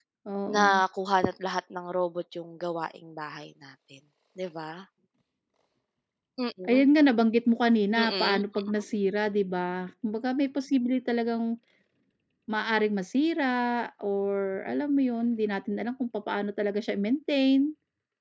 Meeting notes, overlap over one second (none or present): none